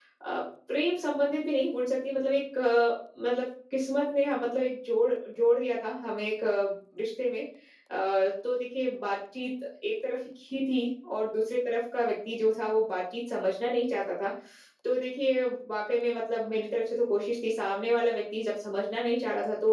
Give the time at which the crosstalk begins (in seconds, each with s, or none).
none